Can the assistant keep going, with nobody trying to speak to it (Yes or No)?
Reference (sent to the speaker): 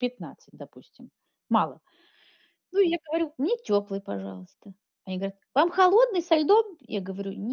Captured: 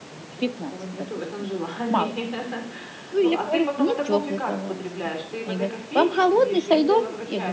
No